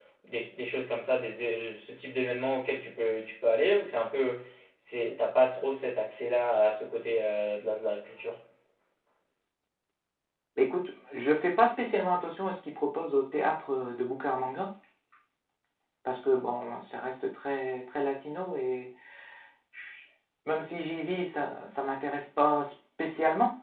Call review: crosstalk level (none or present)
none